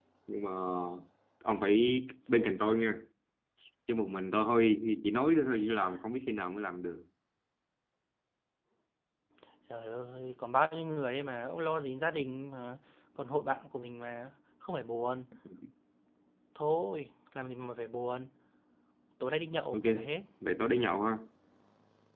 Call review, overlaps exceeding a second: none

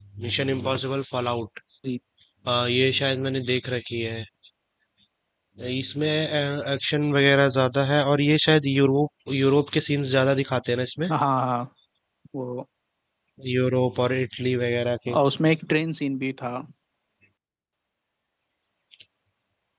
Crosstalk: none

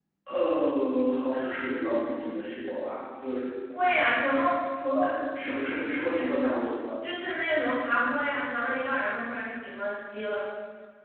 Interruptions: none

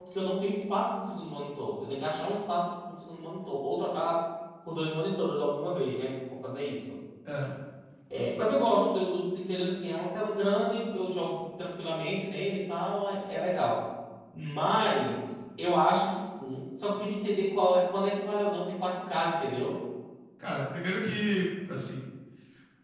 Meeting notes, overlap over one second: none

